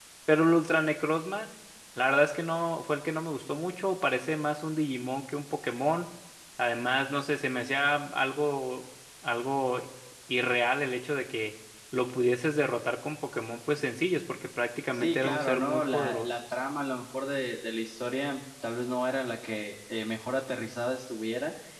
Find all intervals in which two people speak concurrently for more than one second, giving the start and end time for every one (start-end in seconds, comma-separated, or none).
14.9-16.4